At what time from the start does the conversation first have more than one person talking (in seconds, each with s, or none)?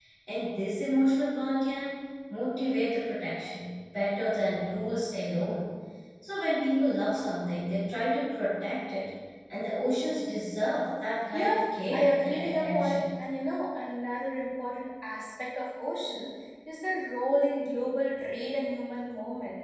11.3 s